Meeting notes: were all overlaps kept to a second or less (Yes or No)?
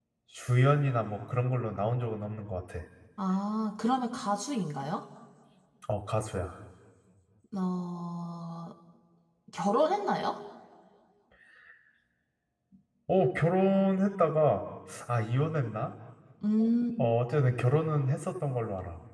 Yes